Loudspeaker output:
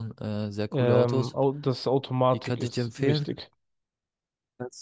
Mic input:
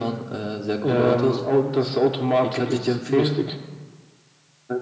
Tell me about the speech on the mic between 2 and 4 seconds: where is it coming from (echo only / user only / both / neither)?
echo only